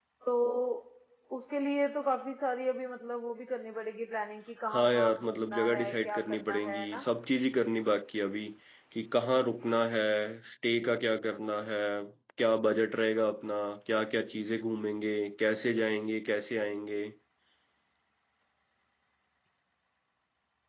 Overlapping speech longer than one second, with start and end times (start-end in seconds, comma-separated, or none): 4.7-7.0